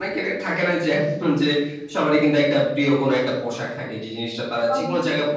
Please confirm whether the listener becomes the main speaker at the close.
No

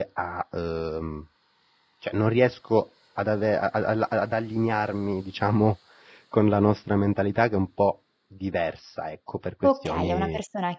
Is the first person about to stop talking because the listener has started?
Yes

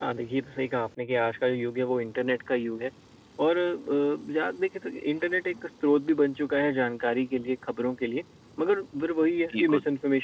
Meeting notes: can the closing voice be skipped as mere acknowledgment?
Yes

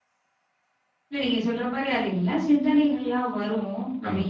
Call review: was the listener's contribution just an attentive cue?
Yes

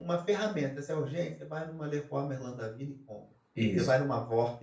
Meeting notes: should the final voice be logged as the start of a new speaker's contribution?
No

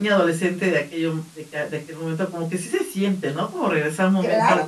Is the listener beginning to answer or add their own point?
Yes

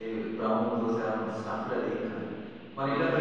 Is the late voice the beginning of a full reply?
Yes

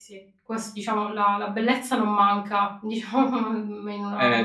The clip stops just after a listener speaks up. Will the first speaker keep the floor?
No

